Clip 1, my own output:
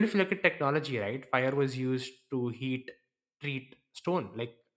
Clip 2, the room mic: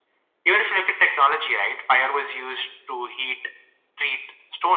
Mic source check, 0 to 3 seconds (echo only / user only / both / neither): echo only